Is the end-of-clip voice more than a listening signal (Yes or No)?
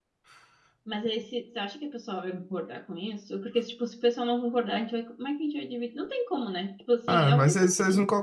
Yes